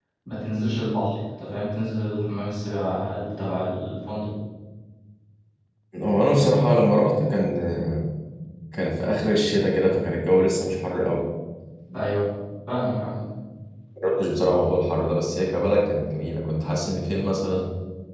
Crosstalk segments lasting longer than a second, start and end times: none

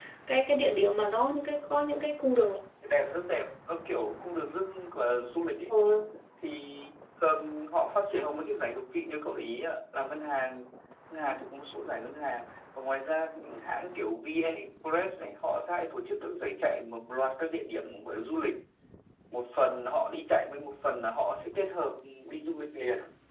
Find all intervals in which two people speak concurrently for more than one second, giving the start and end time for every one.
none

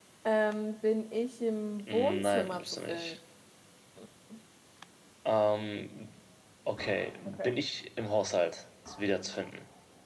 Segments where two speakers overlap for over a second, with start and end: 1.9-3.2

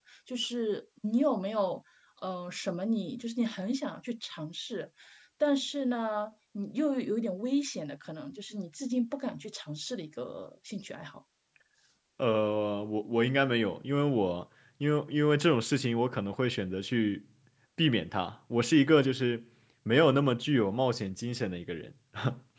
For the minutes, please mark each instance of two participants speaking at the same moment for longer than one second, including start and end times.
none

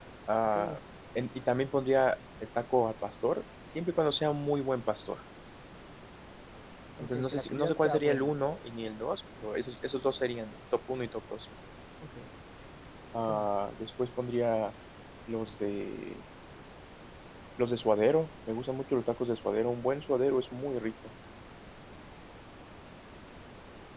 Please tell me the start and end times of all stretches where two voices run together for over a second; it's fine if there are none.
7.0-8.3

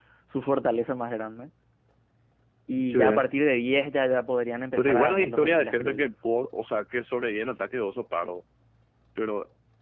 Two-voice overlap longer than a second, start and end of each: 4.8-6.1

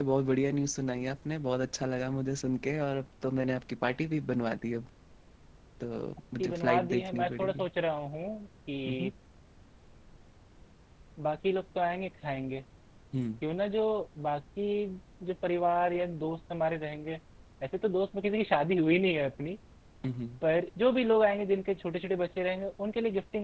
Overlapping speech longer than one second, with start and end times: 6.4-7.7

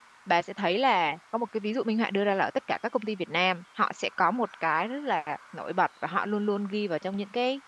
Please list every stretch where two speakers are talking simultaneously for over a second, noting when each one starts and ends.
none

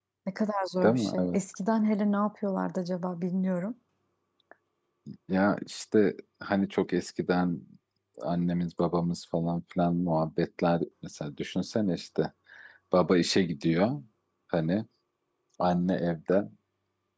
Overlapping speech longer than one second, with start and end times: none

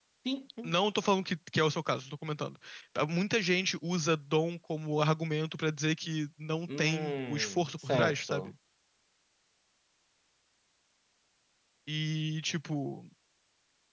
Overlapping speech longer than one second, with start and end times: 6.7-8.5

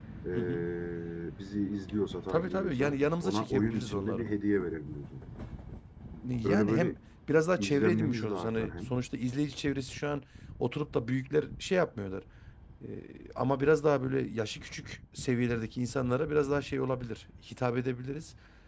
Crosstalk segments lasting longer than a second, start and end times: 2.3-4.3, 7.6-9.0

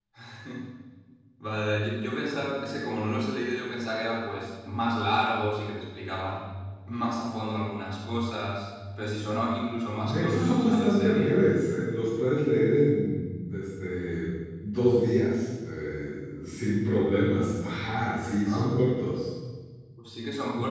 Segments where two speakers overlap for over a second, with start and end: 10.0-11.3

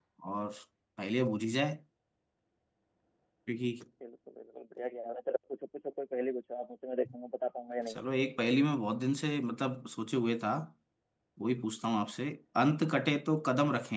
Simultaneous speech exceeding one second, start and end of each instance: none

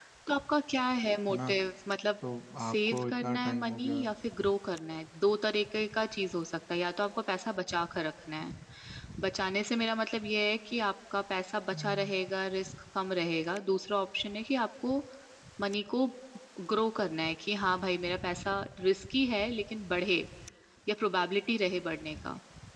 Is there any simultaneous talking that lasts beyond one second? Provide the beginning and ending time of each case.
2.7-4.0

